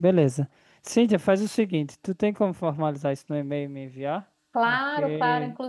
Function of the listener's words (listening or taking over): taking over